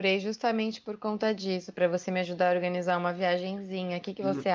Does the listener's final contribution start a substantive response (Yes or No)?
Yes